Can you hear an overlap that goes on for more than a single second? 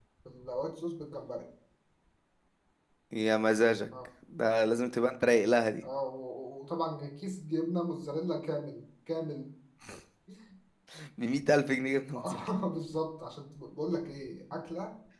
No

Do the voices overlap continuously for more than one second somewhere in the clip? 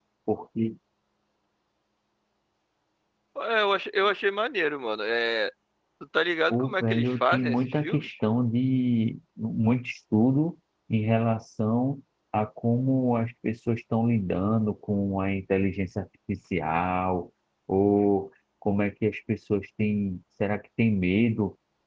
Yes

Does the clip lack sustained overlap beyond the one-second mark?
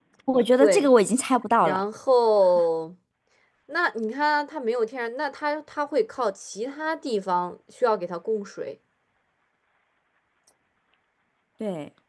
Yes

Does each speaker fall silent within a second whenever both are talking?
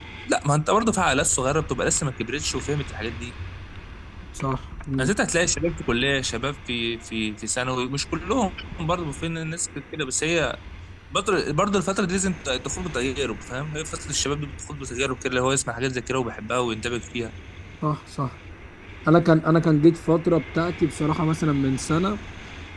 Yes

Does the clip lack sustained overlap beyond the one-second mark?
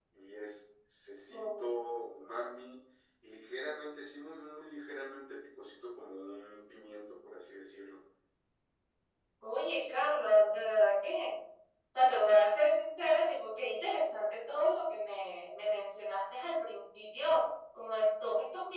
Yes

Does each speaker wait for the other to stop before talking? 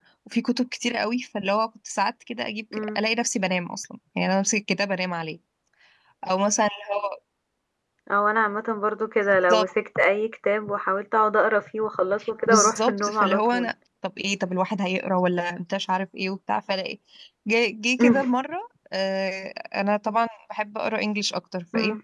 No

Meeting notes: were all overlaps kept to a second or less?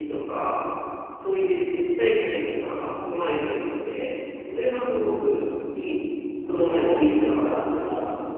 No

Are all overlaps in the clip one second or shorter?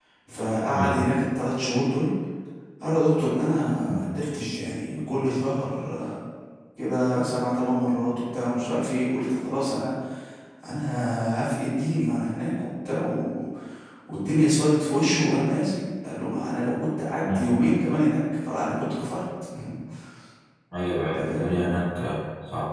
Yes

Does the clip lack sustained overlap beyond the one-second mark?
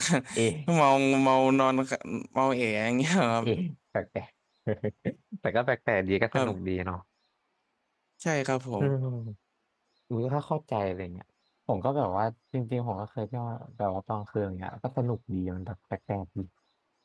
Yes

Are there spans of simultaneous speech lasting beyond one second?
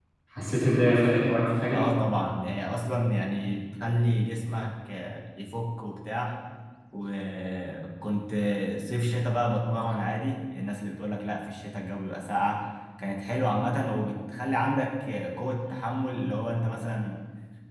No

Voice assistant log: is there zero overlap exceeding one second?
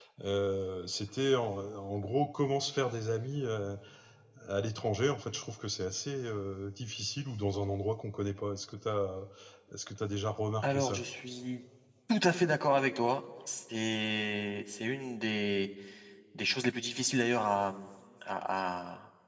Yes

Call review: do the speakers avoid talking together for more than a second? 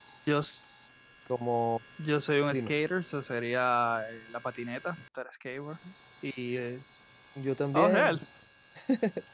Yes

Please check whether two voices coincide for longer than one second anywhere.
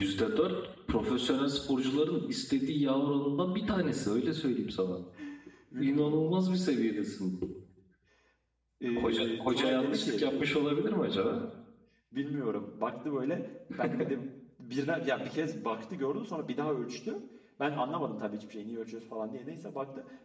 Yes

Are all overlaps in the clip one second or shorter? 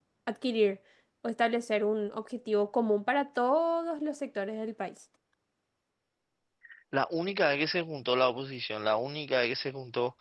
Yes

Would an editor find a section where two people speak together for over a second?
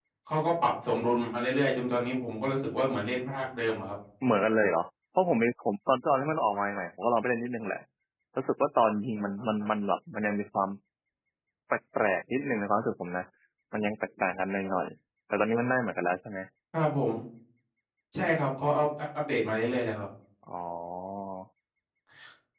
No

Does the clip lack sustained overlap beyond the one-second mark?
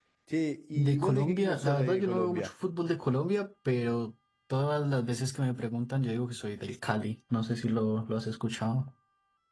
No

